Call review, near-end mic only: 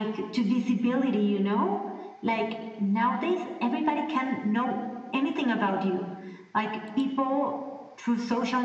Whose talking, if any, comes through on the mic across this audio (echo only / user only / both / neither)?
echo only